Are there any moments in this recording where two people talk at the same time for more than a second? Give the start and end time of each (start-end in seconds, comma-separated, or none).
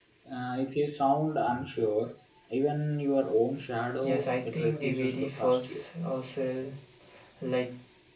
4.0-5.8